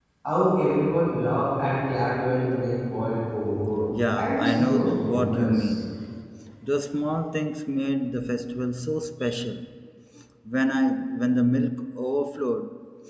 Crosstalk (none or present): present